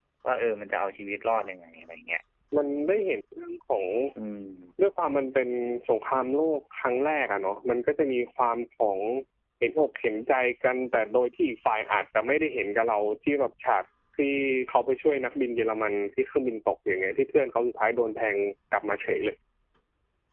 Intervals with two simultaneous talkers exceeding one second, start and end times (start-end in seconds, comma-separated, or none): none